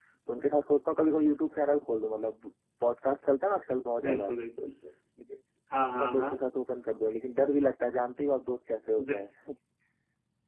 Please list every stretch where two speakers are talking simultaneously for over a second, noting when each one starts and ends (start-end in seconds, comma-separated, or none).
none